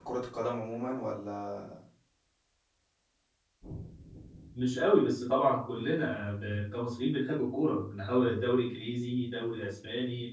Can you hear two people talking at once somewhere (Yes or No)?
No